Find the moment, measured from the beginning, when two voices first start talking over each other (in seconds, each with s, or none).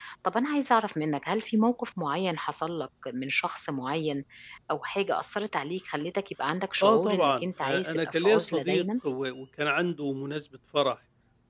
6.8 s